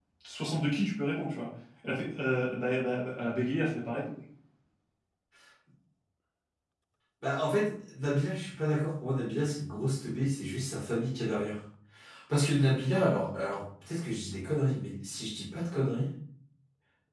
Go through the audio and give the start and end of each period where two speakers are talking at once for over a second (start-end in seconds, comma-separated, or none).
none